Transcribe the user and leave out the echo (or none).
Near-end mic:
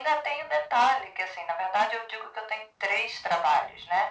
none